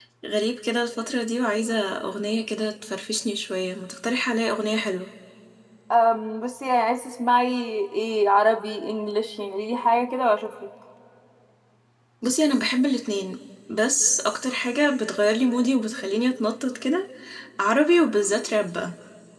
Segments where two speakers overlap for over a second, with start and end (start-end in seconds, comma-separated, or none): none